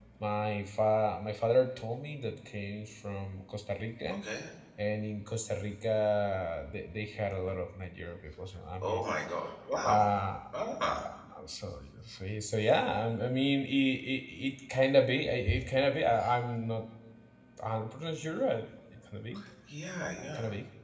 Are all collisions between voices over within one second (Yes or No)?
Yes